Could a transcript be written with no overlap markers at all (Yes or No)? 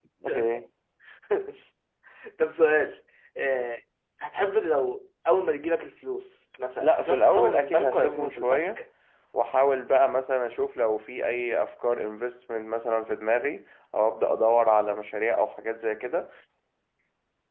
No